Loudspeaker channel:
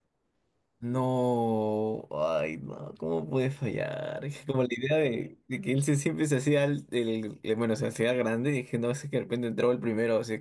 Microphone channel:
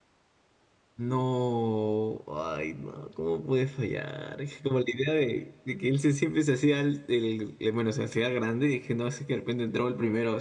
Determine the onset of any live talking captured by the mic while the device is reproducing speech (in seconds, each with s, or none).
none